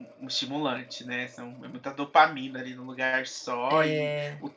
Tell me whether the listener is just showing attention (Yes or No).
Yes